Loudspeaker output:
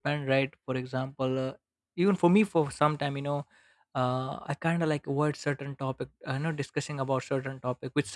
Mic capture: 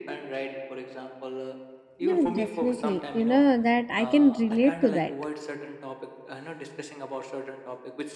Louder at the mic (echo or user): user